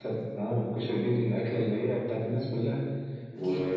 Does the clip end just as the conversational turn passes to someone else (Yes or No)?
No